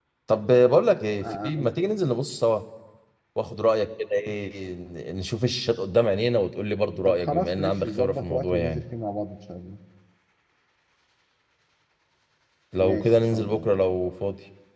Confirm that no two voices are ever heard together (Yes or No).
No